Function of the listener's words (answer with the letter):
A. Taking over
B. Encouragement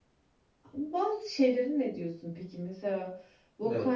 B